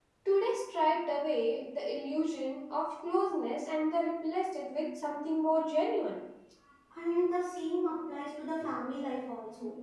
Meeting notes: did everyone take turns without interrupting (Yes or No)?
Yes